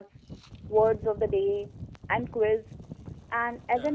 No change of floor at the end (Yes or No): Yes